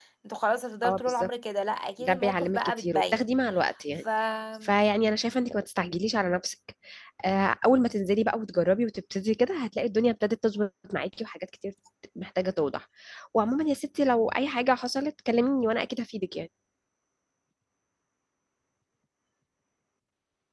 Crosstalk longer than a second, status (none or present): present